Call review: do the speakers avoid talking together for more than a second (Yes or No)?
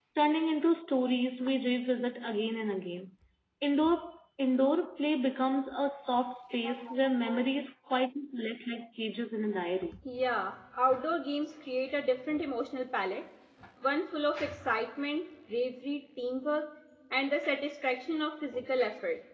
Yes